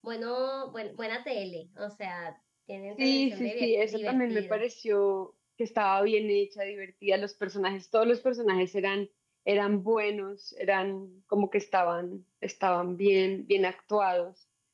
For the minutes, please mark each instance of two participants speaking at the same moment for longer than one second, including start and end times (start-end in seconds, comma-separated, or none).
3.0-4.6